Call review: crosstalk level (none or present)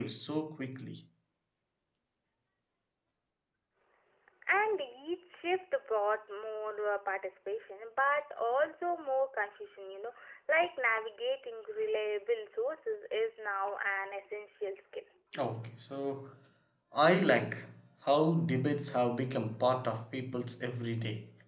none